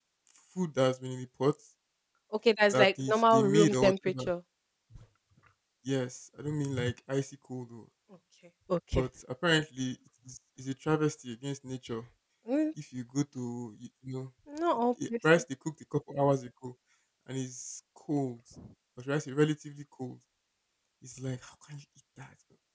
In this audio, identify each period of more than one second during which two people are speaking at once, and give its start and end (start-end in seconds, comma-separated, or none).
2.7-4.3